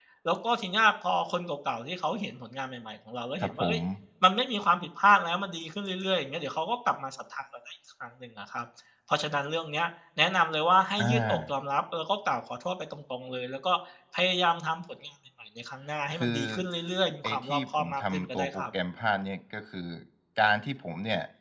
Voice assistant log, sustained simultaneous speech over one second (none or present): present